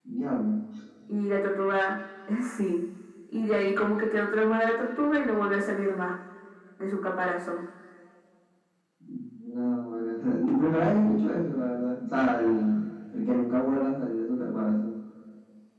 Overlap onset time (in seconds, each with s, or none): none